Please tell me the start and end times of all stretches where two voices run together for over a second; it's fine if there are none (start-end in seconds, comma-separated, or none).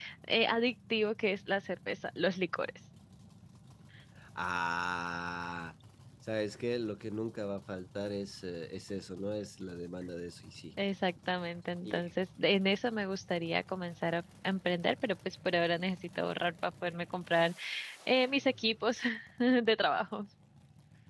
none